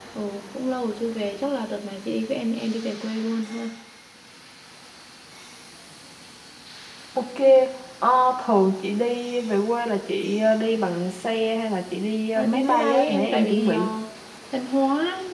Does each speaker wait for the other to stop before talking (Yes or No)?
No